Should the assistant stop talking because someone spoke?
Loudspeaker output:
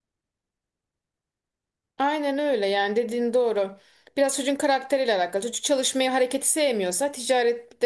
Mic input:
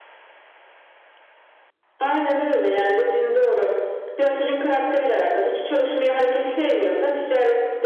No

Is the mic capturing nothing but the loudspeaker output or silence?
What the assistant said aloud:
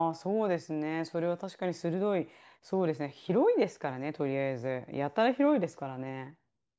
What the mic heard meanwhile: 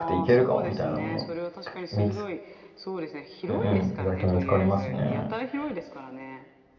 No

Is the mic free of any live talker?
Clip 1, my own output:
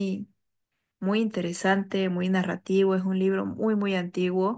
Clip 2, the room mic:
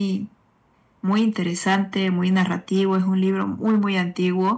Yes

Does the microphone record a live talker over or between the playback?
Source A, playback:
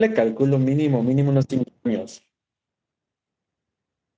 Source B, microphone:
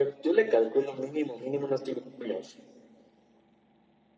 No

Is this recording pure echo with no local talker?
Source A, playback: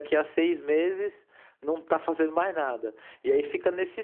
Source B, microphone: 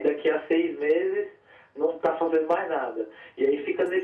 Yes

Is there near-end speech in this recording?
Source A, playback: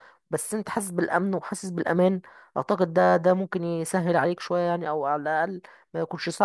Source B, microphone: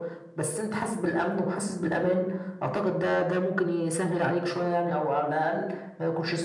No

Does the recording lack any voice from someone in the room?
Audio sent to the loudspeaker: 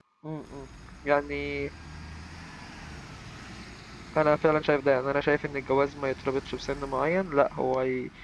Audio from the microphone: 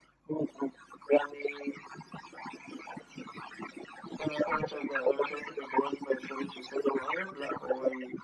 Yes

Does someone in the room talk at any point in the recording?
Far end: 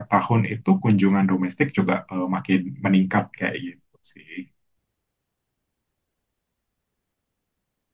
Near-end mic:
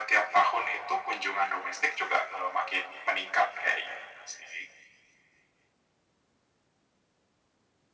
No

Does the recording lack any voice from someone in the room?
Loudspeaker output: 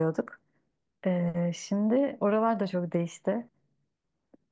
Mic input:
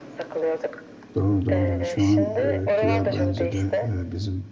No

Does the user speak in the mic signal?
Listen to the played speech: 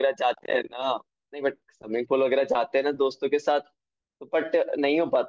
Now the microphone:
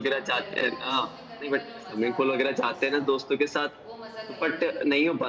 Yes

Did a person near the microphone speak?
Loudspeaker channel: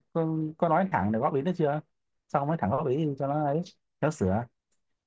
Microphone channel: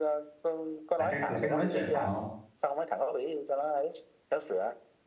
Yes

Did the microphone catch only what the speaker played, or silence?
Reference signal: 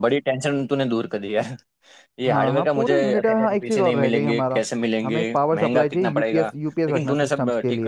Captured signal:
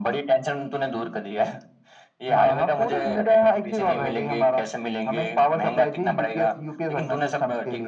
Yes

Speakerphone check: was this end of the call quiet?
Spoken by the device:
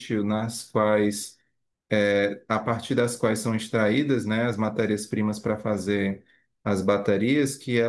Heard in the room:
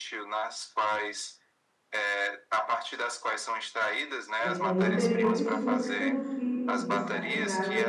No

